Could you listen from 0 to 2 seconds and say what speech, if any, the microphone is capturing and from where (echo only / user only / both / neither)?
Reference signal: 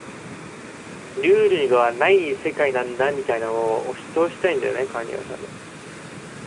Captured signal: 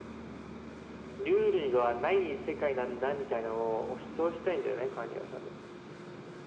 echo only